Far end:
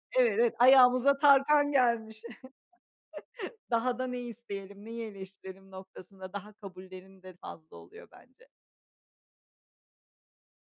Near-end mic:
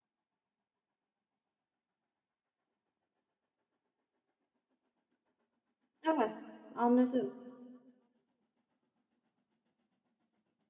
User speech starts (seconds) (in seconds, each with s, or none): 6.0 s